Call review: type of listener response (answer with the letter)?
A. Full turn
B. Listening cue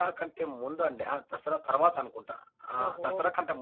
B